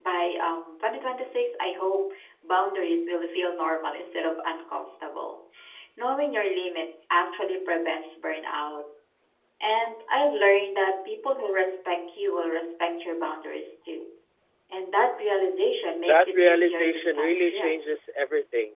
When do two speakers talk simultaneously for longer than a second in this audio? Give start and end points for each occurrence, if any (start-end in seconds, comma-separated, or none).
16.1-17.7